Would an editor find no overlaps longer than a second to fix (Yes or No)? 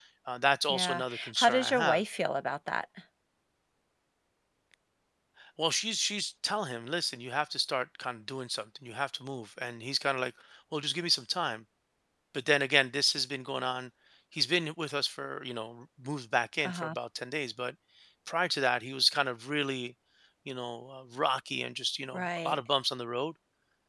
No